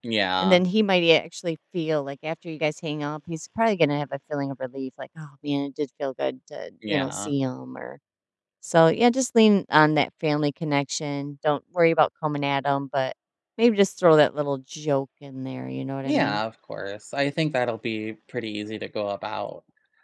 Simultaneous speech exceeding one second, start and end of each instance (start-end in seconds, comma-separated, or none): none